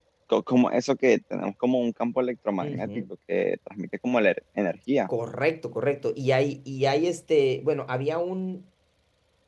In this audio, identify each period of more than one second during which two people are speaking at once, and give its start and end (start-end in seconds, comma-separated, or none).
none